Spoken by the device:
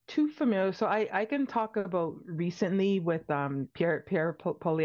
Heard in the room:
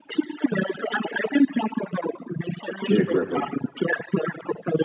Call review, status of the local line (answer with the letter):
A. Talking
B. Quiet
A